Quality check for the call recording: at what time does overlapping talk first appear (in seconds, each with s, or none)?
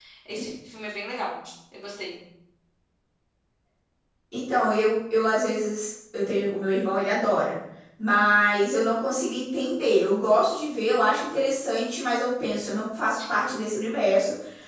none